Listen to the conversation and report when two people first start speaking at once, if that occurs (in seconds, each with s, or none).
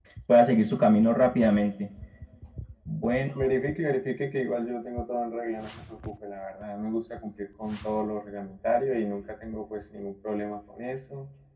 none